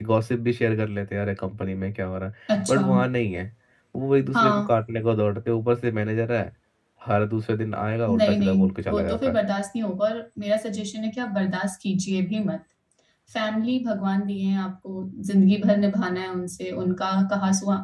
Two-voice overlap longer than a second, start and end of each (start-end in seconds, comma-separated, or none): 8.1-9.4